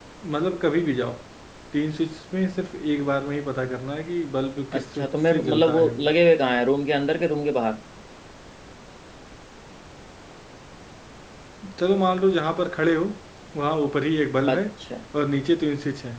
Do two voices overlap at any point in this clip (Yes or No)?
Yes